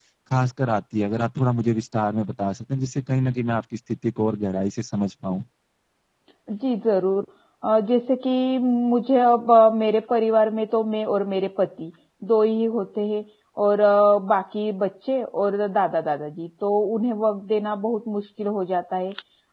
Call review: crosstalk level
none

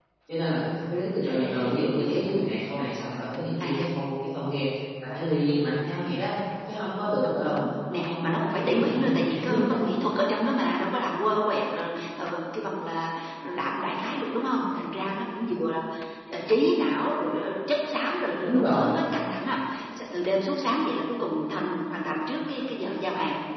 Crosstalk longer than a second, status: present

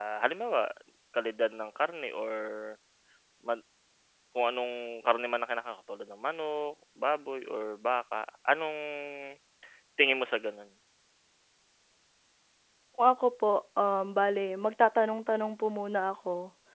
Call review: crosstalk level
none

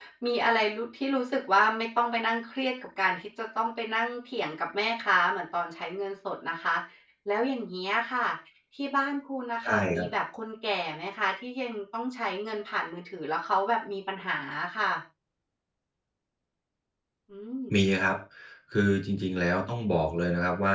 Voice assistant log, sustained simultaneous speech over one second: none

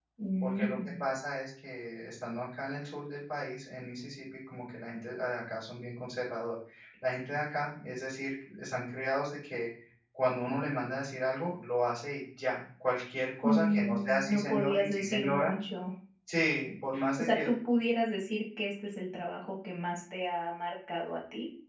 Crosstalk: present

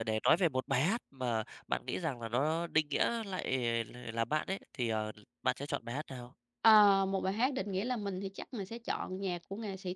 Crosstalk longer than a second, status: none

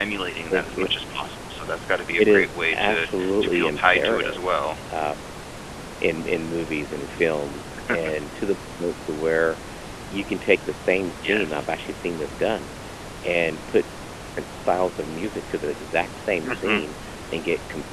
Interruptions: present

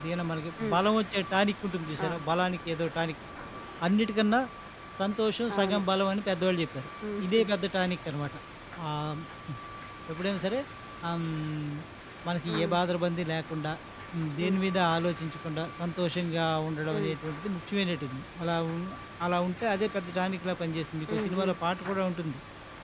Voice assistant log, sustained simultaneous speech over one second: none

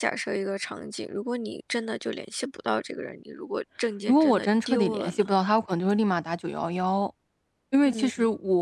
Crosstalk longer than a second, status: present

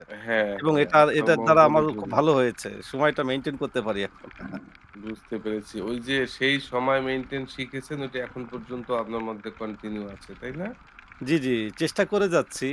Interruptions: present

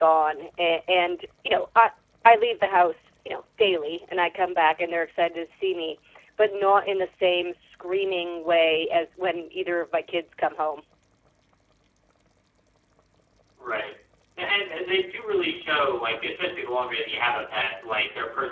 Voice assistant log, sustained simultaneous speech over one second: none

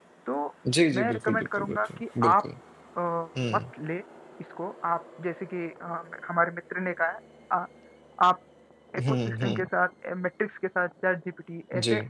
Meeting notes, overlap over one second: present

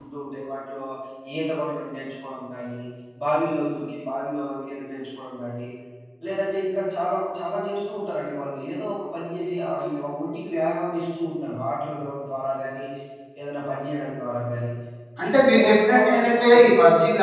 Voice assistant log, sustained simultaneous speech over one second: present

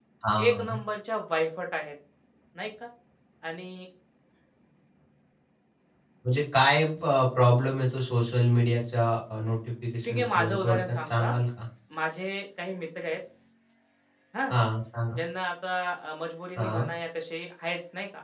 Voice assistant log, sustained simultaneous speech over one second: present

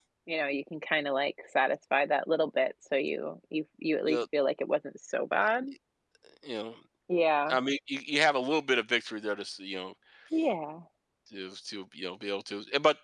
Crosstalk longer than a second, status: none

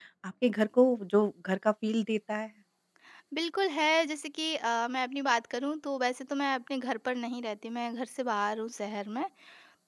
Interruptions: none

